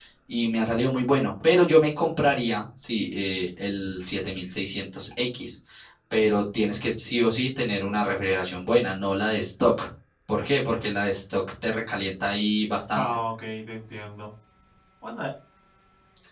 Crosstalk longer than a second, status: none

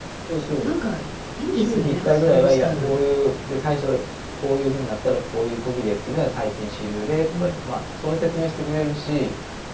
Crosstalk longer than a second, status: present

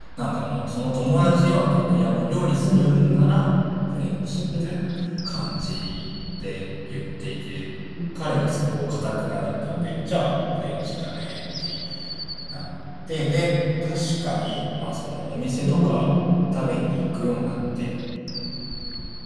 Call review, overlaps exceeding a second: none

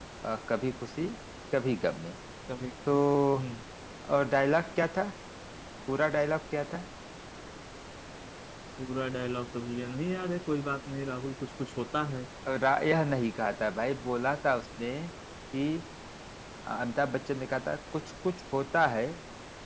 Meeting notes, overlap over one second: none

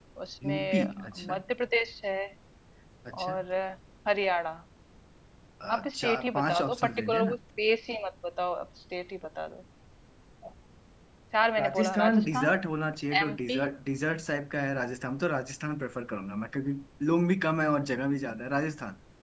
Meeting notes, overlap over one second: present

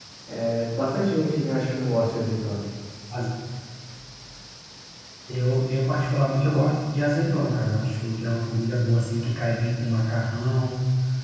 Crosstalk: none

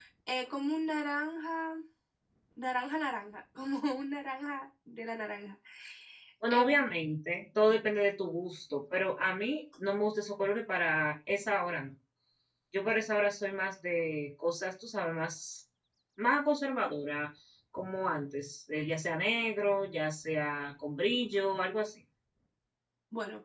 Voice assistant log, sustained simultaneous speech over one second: none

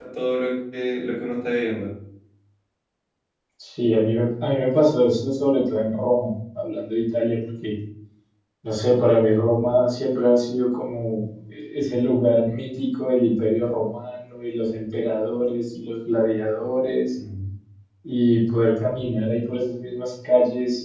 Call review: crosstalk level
none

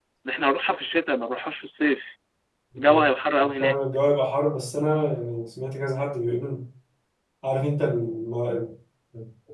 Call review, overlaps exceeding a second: none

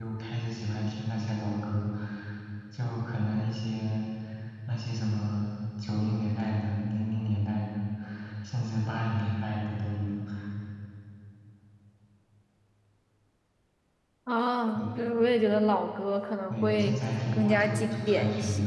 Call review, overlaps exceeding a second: present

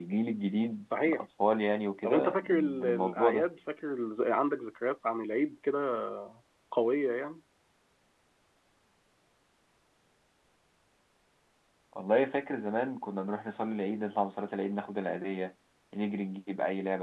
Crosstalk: present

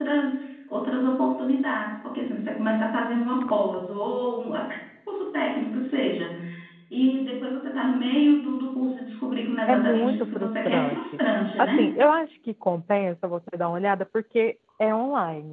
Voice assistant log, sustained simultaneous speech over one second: present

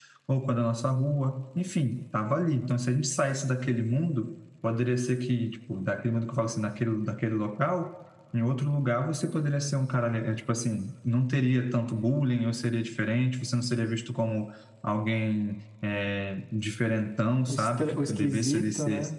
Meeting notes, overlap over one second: present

